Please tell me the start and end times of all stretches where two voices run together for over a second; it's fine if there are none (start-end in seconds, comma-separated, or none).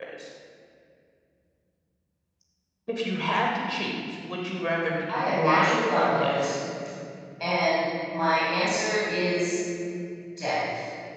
5.1-6.6